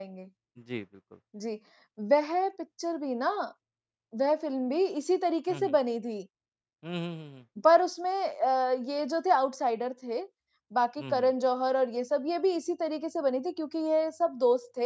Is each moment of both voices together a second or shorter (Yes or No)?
Yes